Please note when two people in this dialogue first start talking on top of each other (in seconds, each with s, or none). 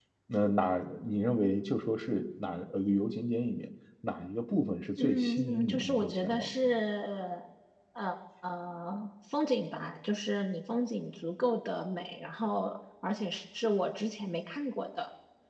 5.0 s